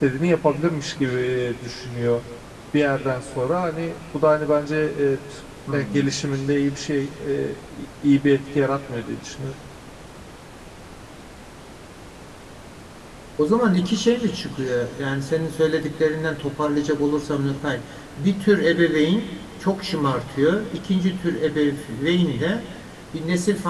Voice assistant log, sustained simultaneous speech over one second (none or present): none